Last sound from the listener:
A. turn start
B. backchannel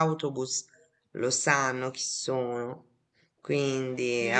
A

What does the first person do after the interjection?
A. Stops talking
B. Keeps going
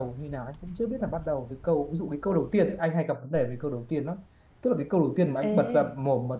B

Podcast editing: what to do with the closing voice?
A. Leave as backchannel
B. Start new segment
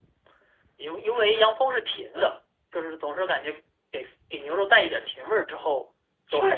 B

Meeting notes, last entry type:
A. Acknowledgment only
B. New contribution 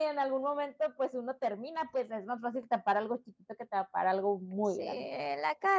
B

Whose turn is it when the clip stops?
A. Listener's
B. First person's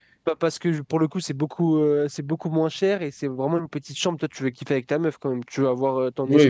A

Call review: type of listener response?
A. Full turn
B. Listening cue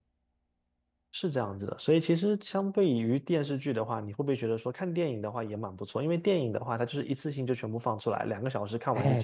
A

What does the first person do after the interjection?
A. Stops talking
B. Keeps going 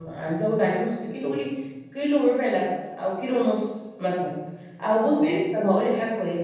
B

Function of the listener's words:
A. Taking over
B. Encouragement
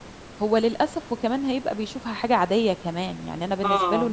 B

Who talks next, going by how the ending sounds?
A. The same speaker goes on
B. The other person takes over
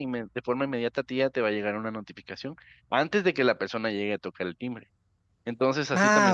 B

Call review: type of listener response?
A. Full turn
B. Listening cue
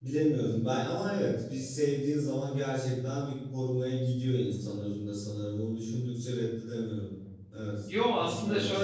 A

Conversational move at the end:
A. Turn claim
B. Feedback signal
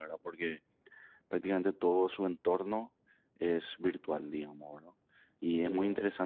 B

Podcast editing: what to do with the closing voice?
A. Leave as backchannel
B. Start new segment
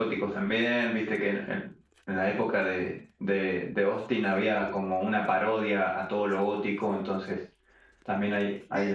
B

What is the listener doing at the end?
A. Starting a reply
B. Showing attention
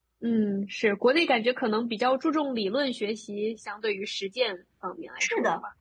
A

